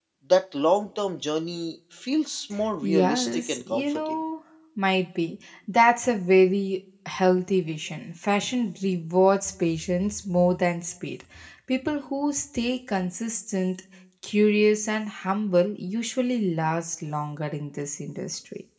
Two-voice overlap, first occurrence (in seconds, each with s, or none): 2.6 s